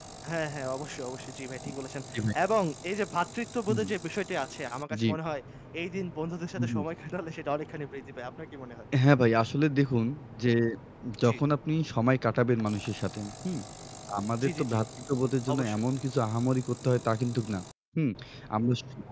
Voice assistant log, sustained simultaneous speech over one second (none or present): none